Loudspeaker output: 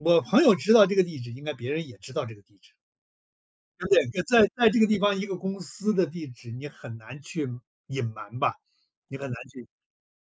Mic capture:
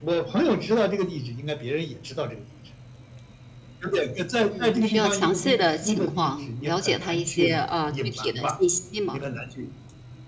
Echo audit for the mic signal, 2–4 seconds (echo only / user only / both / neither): echo only